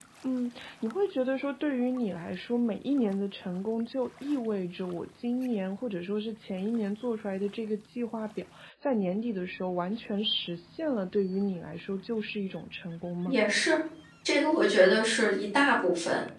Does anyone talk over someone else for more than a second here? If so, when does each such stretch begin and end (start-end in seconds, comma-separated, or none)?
none